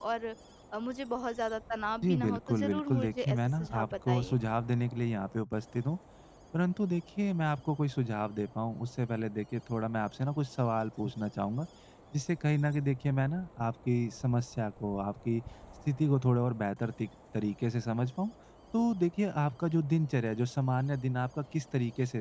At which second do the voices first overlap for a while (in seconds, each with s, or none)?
2.0 s